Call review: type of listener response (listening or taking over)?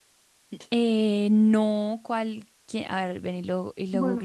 taking over